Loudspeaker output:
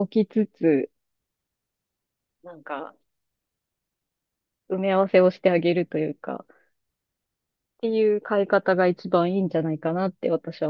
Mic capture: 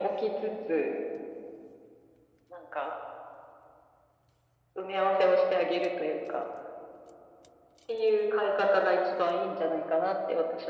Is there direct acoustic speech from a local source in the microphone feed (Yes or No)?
No